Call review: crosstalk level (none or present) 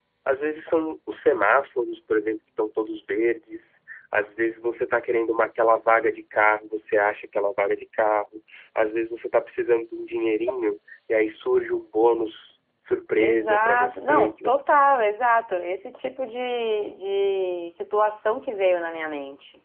present